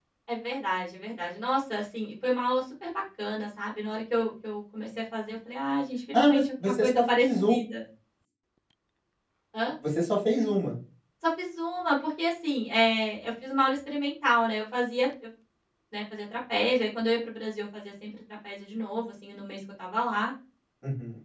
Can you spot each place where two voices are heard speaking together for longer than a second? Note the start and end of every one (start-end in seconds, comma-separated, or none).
6.1-7.5